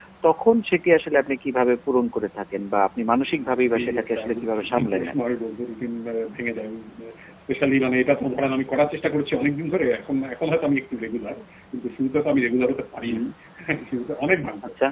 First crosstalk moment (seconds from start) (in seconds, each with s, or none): 3.3 s